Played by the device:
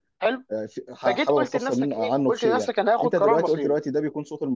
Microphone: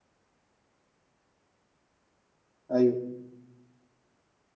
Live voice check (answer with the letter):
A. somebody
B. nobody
A